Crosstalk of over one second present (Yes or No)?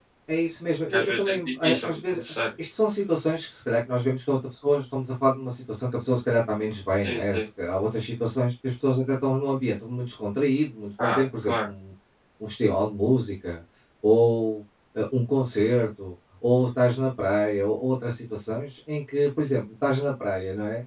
Yes